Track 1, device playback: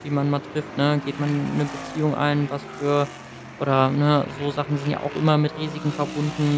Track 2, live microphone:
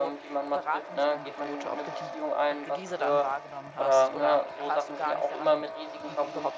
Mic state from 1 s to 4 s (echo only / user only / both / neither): both